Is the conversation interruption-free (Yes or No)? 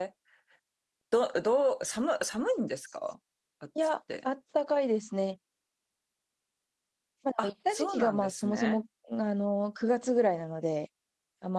No